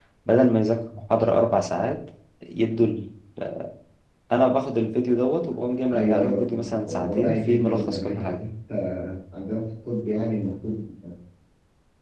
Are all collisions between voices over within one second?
No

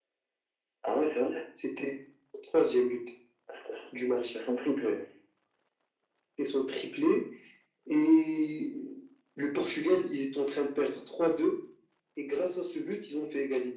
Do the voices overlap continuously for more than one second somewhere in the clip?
No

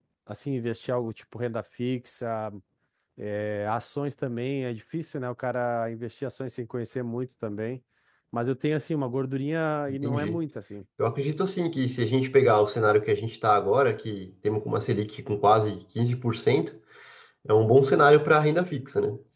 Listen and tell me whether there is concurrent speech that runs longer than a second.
No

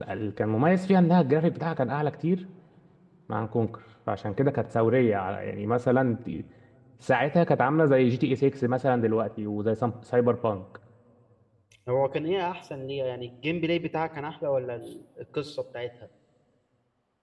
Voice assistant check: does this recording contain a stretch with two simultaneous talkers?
No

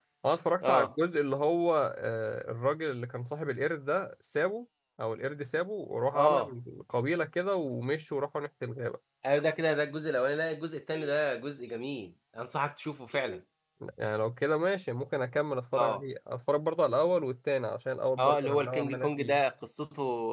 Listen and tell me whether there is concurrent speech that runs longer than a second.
Yes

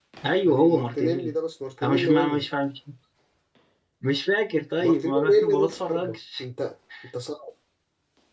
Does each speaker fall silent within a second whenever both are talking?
No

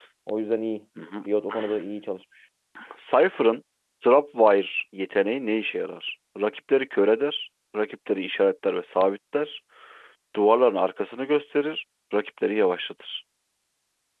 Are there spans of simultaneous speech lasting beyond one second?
No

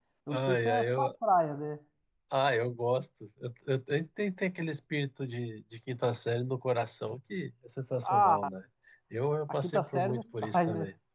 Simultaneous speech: Yes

